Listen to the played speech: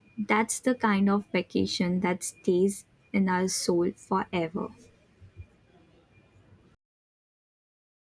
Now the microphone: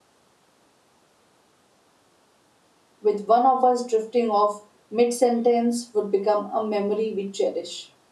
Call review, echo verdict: none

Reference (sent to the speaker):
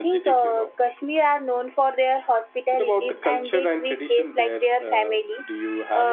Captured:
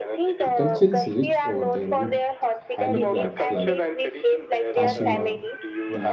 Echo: present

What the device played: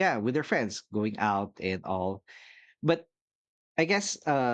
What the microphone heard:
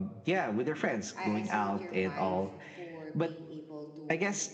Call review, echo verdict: present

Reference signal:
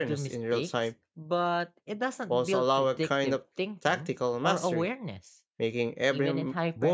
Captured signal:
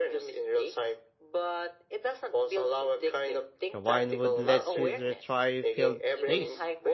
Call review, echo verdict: present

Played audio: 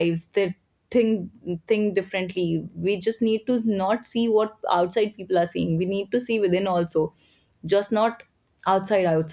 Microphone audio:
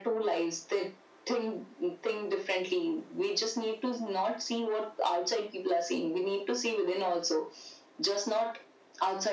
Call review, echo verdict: present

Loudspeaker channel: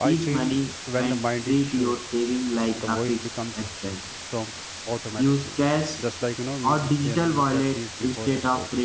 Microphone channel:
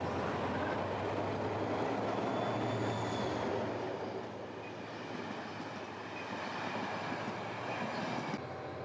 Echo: none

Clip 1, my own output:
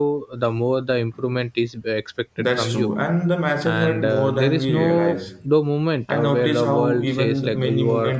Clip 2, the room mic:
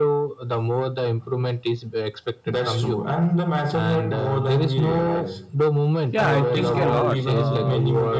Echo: present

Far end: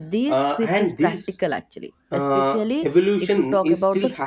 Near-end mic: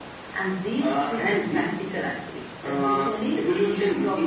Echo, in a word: present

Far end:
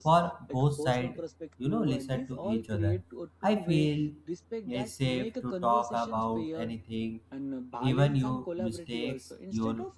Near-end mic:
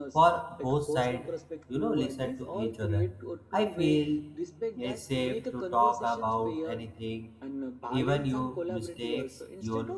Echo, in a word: present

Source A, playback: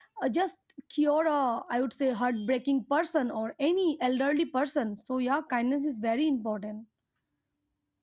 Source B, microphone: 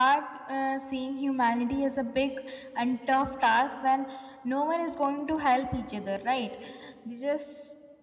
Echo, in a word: none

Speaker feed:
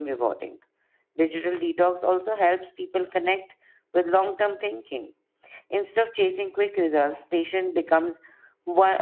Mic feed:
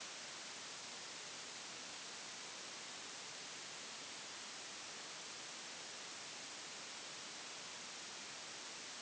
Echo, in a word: none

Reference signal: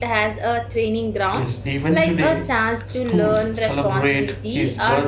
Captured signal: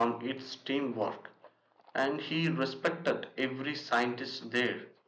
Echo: none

